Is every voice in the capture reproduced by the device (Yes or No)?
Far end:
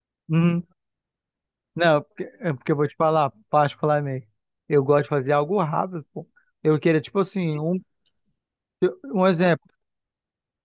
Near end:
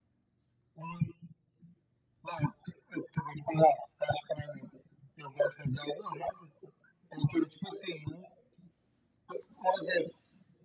Yes